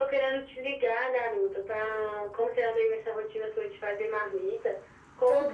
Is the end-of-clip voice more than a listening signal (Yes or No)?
No